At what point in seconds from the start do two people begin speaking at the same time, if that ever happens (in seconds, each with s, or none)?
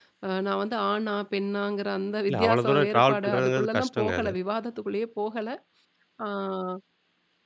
2.3 s